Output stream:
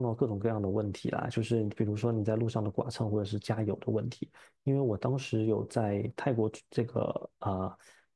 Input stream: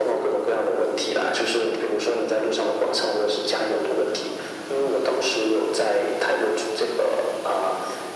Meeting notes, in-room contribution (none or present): none